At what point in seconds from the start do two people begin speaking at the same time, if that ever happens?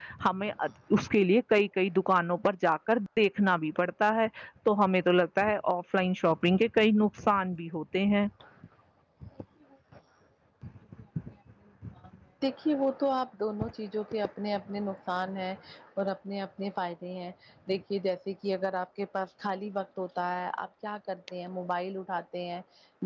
none

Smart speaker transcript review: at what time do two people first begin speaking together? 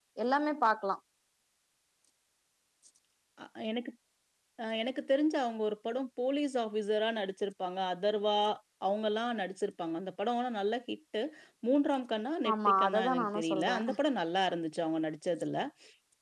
12.5 s

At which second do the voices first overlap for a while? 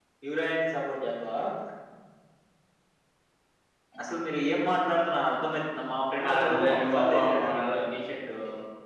6.2 s

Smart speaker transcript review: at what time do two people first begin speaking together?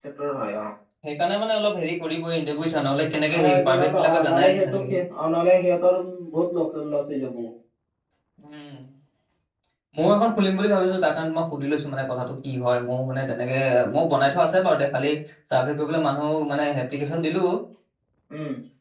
3.3 s

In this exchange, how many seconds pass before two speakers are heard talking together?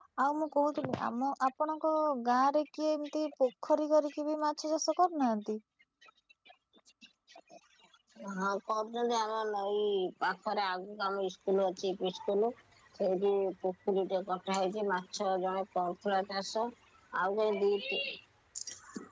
none

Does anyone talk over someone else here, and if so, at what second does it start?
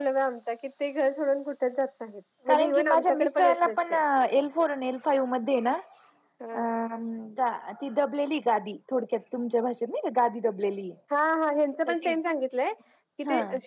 2.5 s

